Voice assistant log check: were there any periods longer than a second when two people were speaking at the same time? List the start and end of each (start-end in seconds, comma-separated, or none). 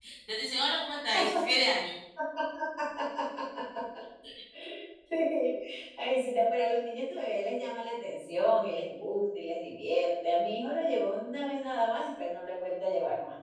none